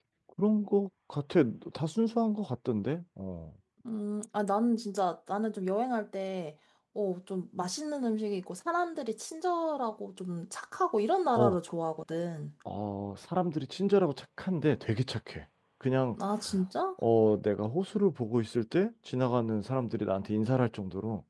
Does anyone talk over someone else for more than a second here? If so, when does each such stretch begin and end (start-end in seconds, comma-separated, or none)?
none